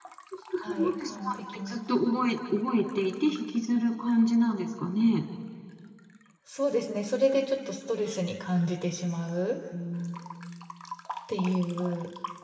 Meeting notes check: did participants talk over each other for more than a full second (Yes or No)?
Yes